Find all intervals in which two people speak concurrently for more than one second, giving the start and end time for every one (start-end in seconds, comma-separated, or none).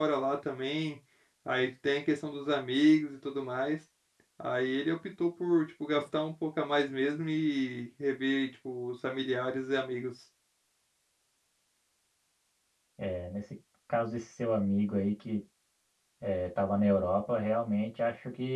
none